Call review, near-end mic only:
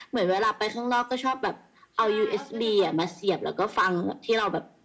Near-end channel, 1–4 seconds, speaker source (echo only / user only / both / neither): both